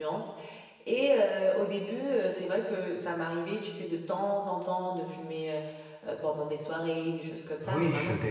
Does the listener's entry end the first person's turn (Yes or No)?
Yes